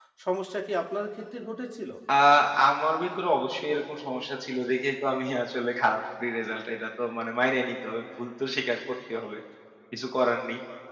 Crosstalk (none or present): none